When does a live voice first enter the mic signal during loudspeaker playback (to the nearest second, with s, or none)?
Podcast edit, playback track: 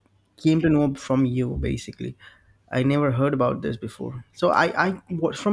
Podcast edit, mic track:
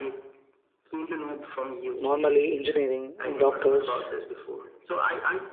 2 s